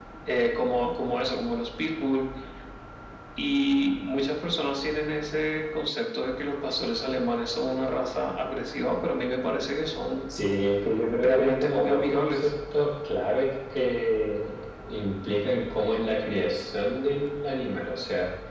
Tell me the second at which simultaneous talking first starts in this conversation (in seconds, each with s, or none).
11.2 s